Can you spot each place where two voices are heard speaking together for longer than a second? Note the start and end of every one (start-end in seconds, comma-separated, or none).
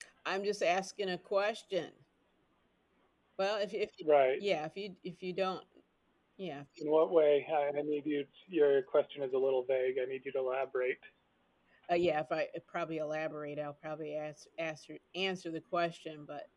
none